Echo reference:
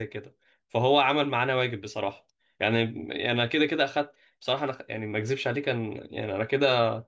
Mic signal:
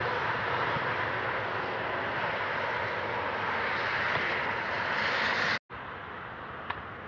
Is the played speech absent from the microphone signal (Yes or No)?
Yes